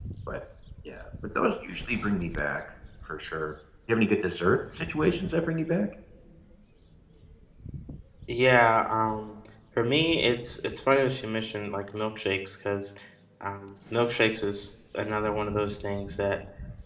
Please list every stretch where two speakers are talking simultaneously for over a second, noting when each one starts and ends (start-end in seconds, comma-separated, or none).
none